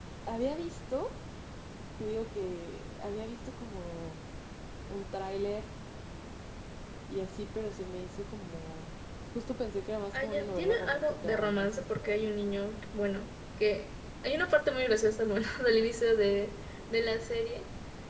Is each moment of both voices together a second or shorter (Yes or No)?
No